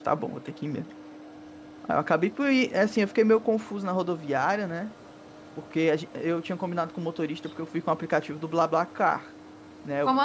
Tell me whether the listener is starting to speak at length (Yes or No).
No